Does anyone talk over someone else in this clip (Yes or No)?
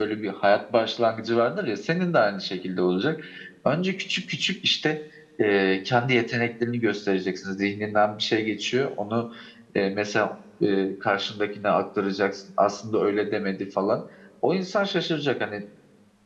No